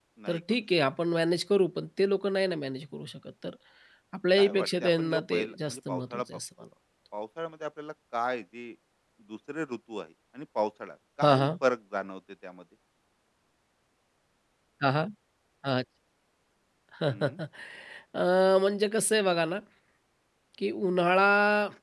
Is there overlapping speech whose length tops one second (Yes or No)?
Yes